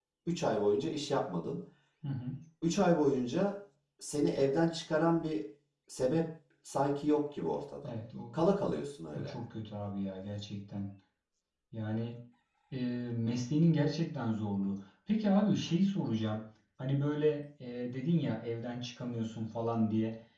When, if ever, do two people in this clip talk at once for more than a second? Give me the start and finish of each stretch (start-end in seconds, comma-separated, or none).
none